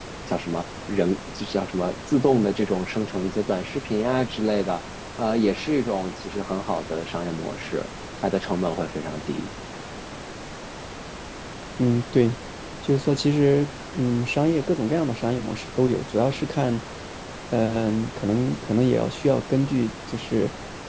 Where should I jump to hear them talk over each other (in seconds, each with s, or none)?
none